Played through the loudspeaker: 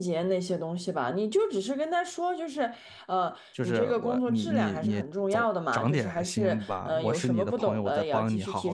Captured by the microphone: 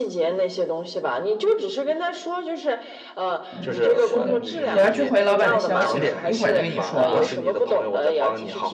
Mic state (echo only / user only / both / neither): both